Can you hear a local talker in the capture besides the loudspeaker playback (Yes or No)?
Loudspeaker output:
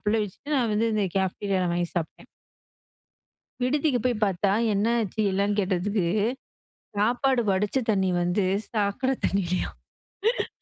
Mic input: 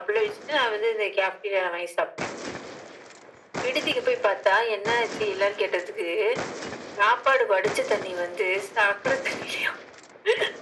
No